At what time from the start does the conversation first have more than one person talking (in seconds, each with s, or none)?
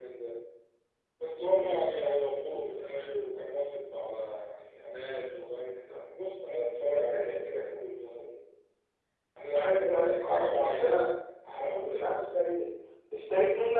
9.5 s